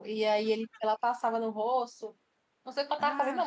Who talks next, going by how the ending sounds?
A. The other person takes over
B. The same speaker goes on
B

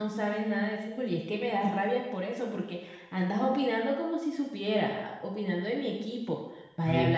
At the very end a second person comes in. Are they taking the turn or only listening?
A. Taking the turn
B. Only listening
B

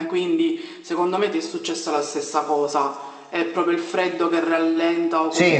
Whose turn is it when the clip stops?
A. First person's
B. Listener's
A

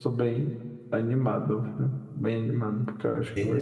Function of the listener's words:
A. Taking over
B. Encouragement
A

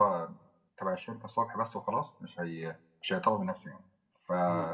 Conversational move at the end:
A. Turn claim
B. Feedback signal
B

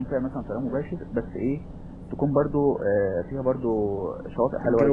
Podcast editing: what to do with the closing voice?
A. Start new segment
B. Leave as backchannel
B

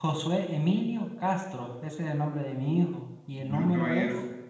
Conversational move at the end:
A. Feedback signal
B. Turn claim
B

